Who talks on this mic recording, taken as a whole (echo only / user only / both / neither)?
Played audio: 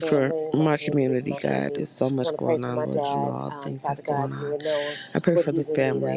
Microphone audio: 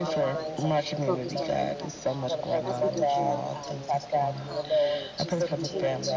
both